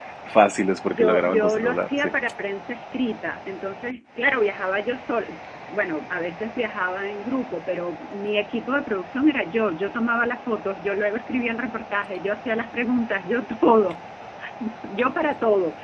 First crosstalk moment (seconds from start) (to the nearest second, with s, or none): 1 s